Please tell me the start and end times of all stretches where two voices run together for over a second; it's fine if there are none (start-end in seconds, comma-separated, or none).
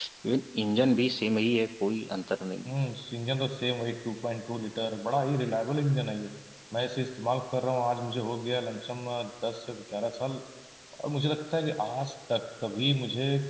none